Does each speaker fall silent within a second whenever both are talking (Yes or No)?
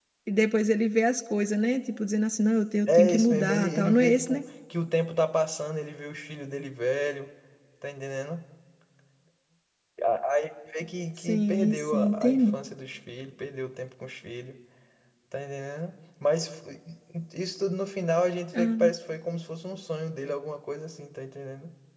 No